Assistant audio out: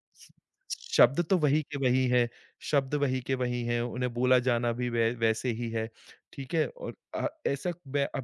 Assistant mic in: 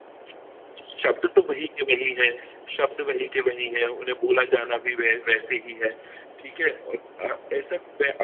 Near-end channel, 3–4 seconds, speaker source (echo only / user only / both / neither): echo only